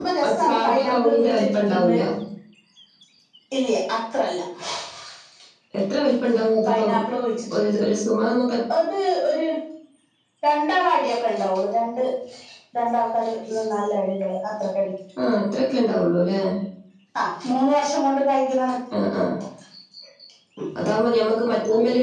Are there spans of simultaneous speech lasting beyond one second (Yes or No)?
Yes